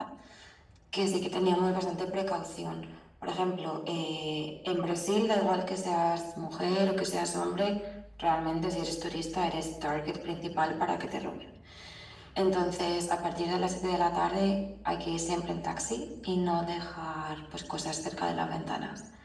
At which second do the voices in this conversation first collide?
none

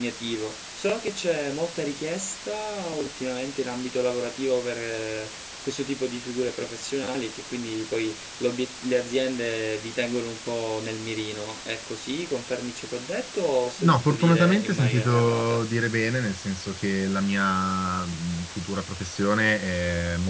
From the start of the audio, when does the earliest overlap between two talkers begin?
13.8 s

